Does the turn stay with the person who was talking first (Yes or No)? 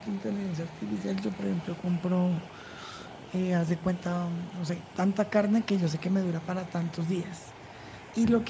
Yes